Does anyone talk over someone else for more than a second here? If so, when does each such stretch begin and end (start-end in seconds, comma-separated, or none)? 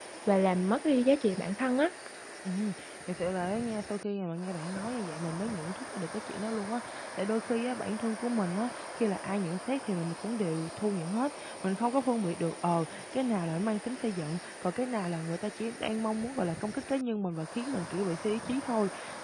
none